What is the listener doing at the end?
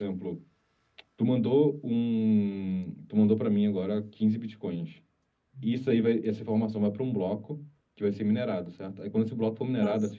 listening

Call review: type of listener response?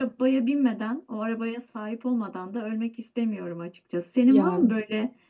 listening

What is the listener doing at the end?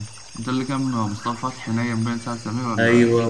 taking over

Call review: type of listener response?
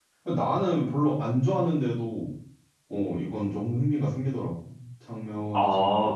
taking over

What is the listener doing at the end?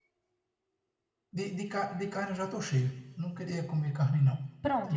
taking over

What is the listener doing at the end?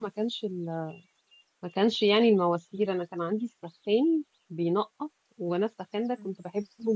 listening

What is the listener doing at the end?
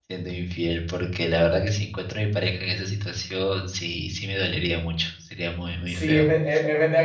taking over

